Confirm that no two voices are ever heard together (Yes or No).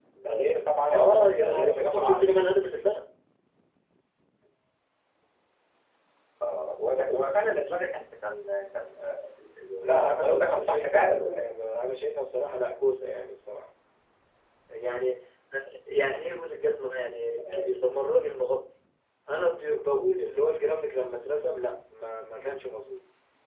No